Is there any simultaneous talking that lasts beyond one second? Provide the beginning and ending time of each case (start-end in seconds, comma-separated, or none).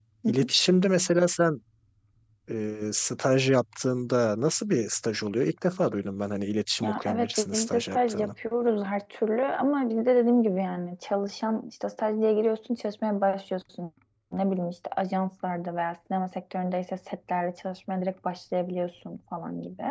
6.8-8.3